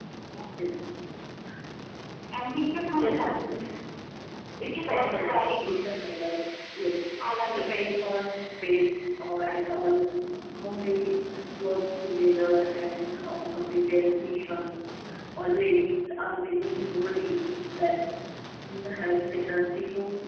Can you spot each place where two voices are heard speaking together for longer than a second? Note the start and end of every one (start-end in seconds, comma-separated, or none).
4.6-5.9